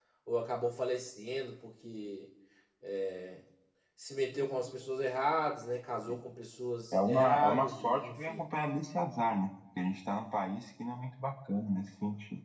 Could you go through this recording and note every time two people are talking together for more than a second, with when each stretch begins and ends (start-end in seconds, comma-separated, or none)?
6.9-8.4